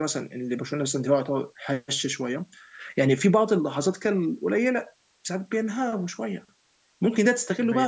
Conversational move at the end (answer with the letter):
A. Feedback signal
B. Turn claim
A